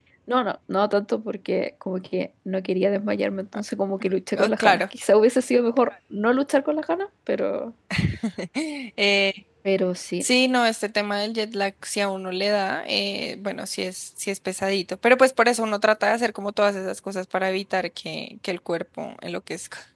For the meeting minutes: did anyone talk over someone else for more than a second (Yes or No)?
No